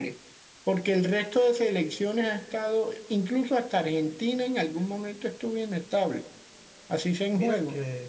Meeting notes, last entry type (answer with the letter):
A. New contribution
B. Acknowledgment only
A